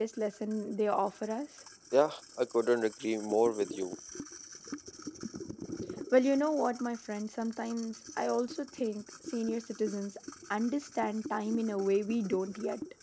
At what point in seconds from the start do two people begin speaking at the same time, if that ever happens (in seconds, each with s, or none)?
none